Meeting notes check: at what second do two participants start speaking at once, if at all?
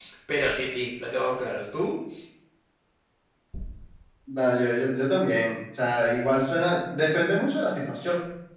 none

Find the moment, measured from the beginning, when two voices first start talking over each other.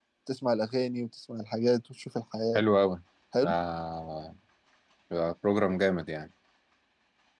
none

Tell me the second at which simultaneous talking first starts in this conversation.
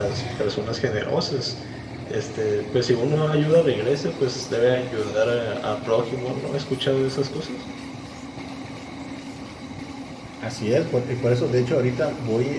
none

